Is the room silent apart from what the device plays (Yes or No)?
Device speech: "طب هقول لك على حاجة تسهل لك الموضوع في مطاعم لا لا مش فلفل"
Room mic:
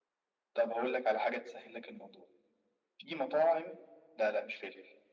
Yes